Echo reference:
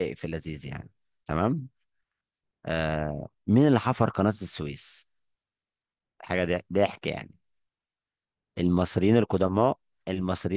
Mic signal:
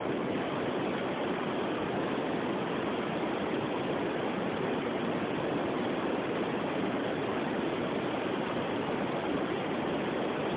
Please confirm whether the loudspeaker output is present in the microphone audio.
No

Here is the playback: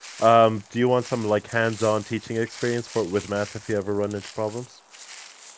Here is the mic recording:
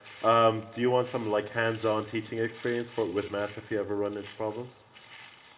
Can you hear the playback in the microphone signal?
Yes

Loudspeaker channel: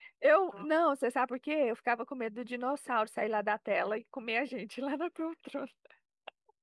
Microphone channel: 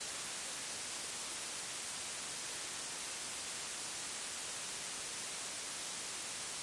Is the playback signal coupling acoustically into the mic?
No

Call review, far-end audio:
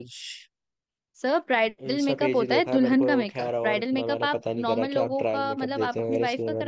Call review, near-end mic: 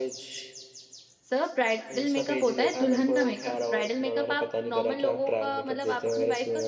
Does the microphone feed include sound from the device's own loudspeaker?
Yes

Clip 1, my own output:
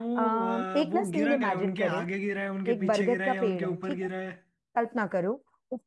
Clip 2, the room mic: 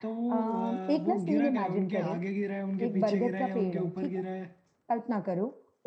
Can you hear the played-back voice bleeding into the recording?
Yes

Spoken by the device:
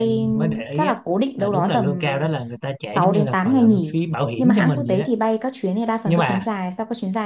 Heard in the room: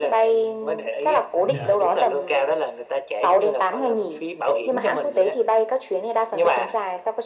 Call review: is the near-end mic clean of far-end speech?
No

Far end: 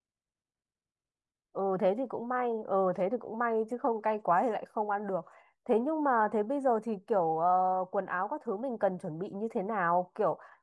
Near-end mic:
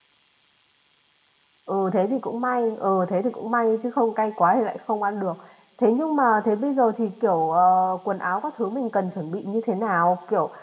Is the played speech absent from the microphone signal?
No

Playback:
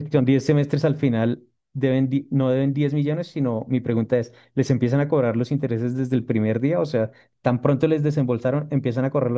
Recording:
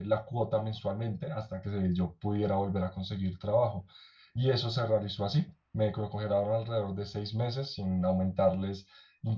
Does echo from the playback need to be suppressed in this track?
No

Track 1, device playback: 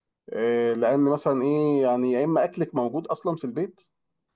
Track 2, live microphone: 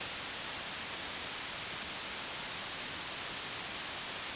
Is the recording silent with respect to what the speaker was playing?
Yes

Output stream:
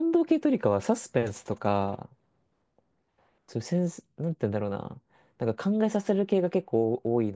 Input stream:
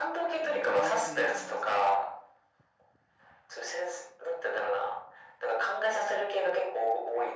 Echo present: Yes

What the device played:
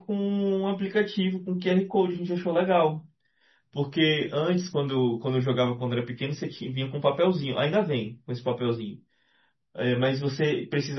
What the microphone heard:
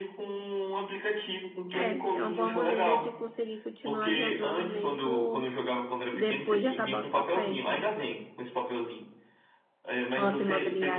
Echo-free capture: No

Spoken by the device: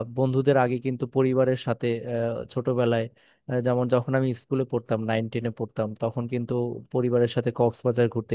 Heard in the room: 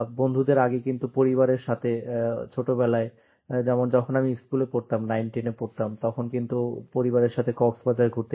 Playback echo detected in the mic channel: Yes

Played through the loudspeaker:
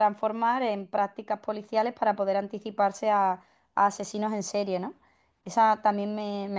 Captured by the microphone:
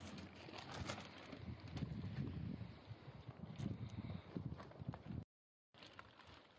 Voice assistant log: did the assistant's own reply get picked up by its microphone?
No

